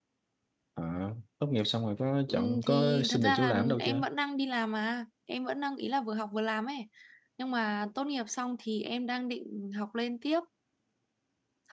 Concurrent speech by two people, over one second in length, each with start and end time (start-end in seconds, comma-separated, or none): 2.3-4.0